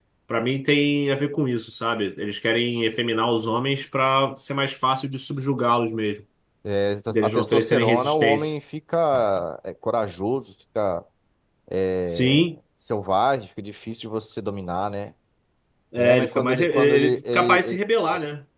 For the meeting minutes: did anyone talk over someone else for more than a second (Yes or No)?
Yes